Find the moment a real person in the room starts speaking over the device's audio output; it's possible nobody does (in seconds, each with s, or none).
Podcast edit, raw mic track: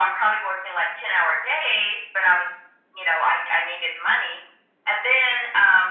none